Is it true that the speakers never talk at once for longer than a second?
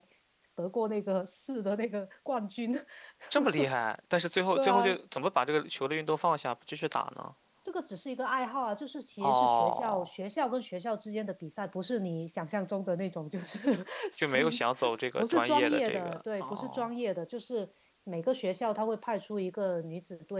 No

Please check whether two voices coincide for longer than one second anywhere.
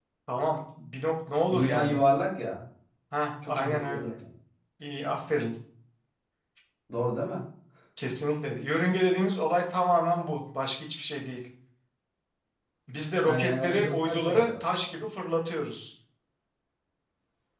Yes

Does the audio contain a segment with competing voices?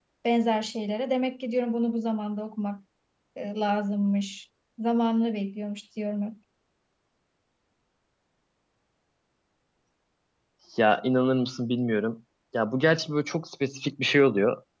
No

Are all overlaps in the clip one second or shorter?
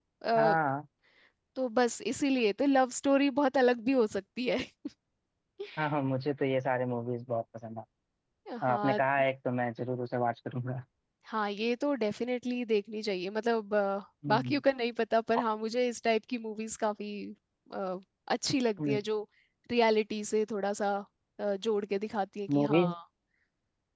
Yes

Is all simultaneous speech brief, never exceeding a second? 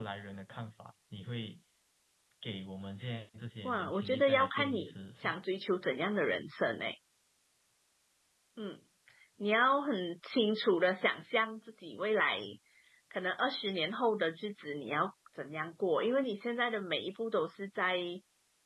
No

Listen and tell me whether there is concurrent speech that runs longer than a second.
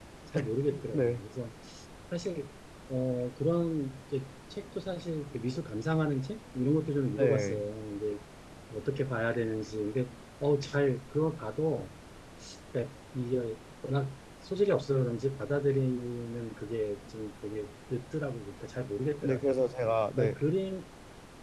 No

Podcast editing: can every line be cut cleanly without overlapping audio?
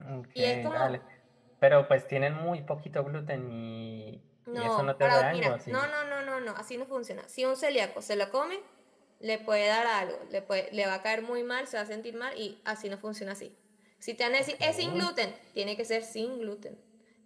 No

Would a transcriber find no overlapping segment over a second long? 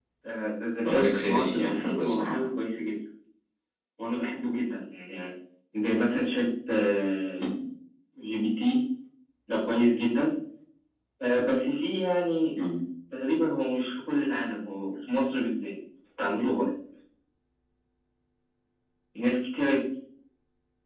No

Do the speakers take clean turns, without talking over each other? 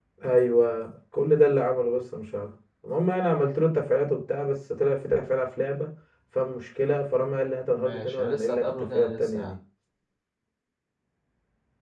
No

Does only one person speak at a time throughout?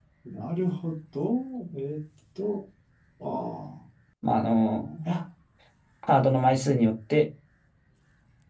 Yes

